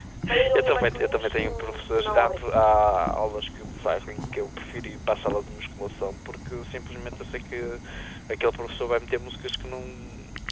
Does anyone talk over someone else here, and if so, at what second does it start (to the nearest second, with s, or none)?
1 s